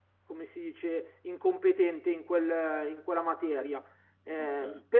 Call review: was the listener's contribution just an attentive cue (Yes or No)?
No